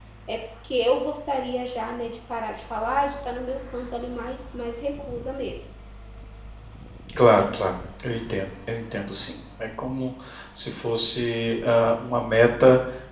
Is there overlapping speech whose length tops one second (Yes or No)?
No